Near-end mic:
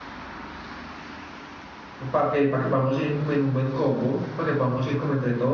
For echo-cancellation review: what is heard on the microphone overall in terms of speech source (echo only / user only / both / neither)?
user only